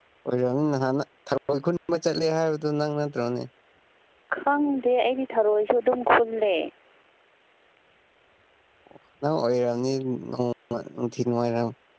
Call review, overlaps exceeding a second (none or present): none